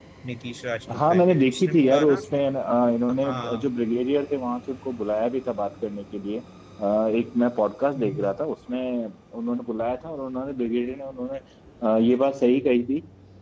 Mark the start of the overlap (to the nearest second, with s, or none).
1 s